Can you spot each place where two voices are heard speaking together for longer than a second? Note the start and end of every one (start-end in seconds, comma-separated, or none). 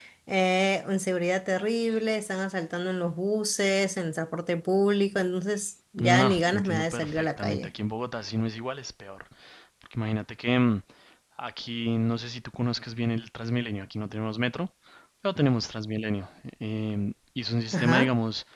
6.0-7.7